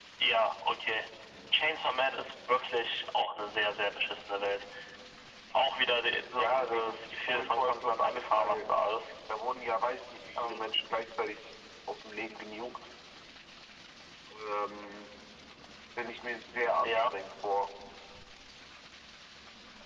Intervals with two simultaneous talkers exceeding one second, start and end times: 6.4-8.6

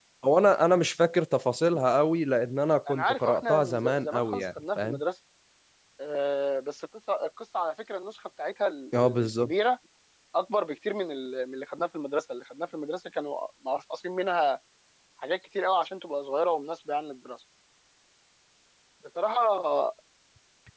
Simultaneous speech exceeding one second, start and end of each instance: 2.9-5.0

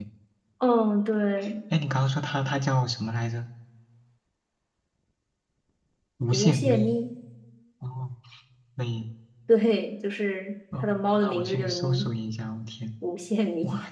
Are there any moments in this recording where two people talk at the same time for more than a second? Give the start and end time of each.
10.8-12.1

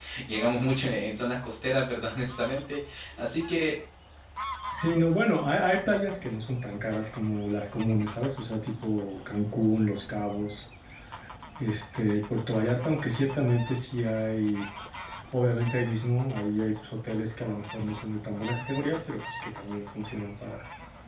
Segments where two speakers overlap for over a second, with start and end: none

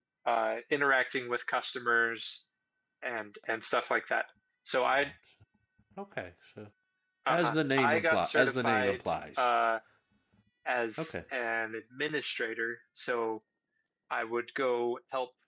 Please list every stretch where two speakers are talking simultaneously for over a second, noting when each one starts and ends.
7.3-9.5

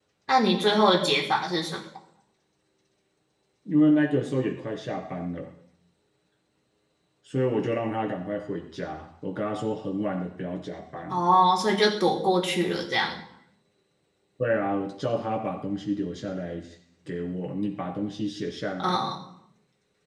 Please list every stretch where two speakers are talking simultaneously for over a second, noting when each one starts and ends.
none

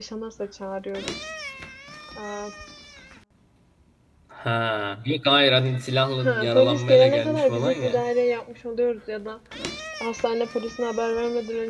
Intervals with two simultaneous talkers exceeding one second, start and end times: 6.2-8.0

